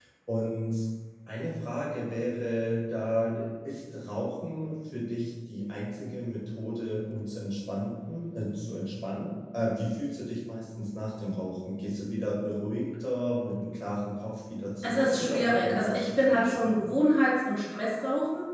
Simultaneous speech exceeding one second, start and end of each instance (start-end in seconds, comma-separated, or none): 14.8-16.9